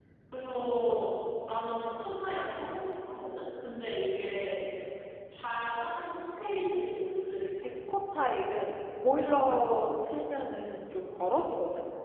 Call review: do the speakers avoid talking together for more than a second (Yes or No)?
Yes